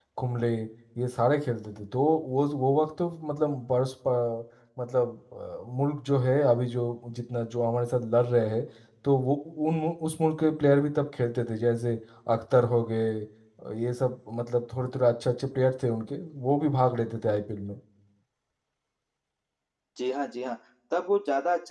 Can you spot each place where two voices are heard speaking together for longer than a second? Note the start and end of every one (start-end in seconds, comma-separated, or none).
none